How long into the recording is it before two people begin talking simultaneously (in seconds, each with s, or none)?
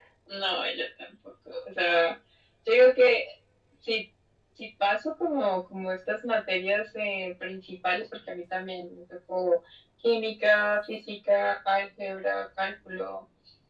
none